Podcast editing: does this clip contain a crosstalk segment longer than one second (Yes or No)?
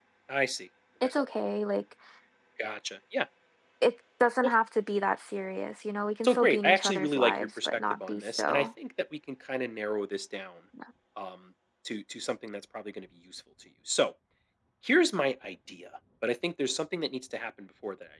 Yes